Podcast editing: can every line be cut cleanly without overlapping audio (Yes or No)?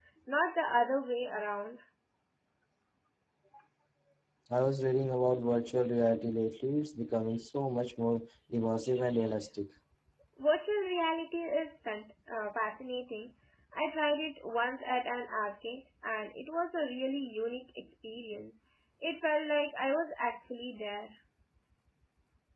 Yes